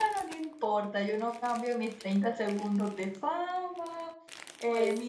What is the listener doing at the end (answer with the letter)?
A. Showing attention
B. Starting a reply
A